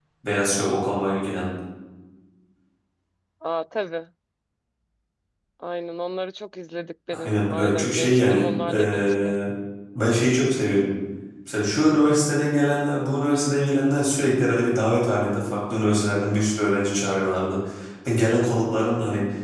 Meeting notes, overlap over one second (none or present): present